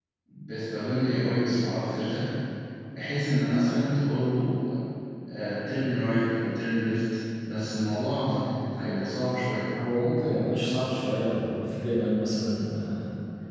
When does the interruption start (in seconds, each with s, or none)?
none